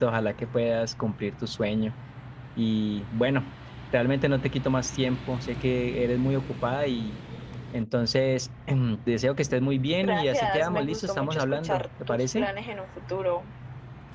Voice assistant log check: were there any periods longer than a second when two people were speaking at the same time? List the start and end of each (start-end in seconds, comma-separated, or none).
10.0-12.5